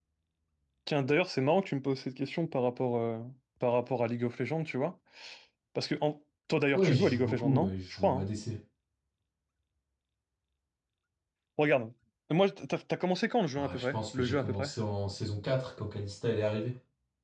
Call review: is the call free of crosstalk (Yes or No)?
No